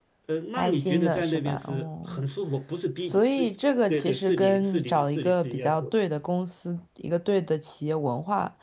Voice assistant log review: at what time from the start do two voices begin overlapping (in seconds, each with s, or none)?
0.6 s